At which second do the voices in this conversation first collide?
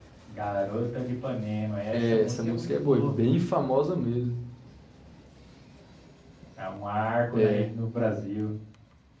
1.9 s

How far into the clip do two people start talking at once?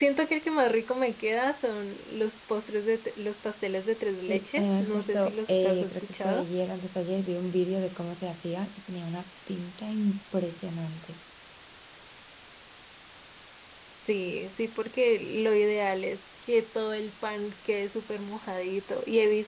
4.3 s

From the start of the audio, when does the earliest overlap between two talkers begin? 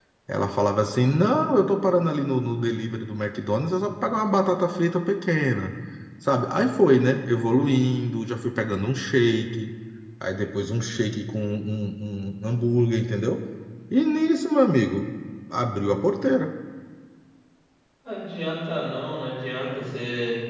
none

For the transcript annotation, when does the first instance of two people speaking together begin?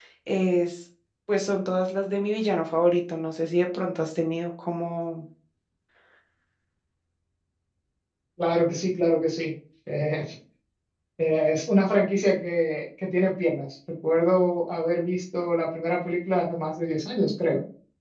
none

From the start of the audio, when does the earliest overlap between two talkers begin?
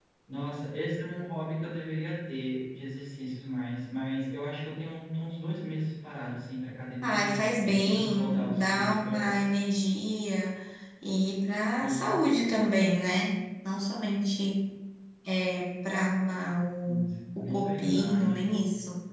7.0 s

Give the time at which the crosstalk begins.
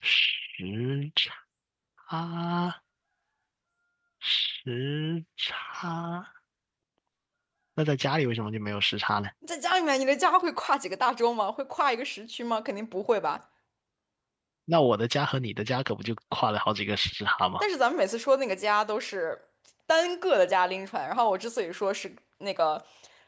none

